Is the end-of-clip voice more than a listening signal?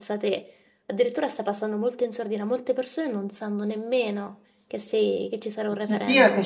Yes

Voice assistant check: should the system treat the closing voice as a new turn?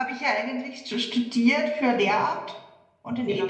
No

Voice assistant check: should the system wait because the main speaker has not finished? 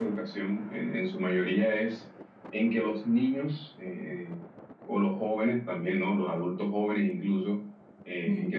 Yes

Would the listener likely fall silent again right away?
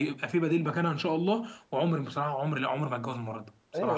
No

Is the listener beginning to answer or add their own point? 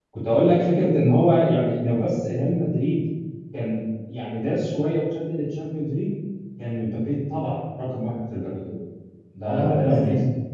Yes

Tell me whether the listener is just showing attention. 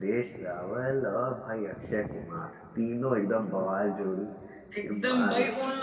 No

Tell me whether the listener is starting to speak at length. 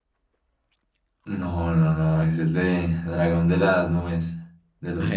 Yes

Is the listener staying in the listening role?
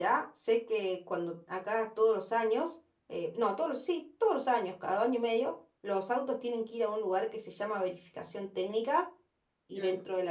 Yes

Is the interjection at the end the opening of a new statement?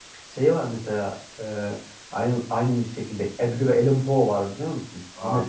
Yes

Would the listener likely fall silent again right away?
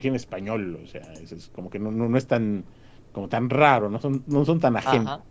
Yes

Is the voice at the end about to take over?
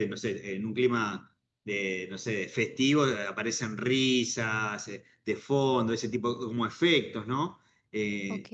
No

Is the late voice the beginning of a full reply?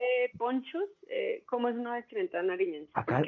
Yes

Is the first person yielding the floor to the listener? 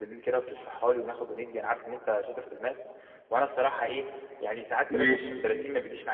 No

